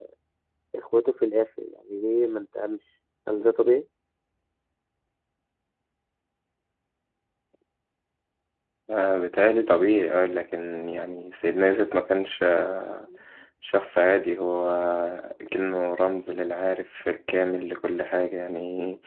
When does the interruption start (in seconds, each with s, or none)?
none